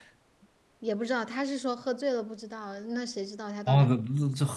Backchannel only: No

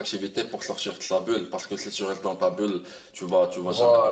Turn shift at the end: No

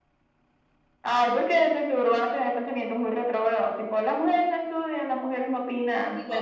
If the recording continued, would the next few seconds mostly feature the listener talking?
Yes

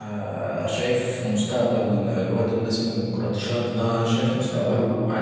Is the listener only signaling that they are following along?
Yes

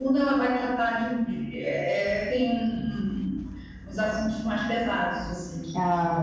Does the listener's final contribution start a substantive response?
No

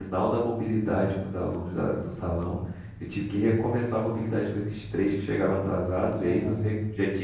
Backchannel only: Yes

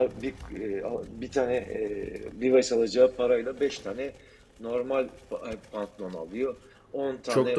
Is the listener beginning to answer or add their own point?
No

